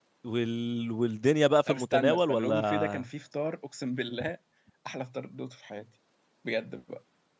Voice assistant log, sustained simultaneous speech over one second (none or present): present